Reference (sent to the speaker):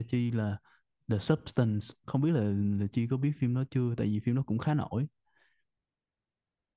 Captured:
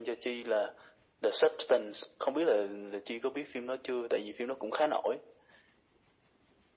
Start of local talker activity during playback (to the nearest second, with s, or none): none